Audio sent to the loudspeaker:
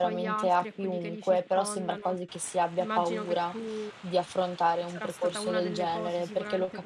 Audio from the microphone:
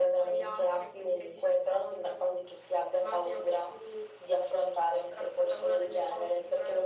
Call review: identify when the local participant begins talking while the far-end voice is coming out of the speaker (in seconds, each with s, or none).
none